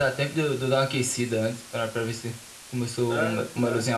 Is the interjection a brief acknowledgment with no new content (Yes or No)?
Yes